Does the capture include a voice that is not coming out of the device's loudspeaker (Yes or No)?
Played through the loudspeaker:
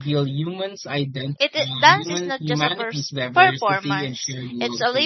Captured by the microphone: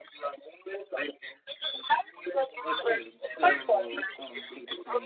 Yes